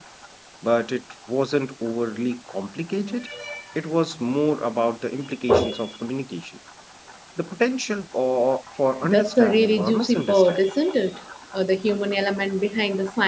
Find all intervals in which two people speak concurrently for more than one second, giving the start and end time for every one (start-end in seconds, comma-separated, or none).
9.0-10.6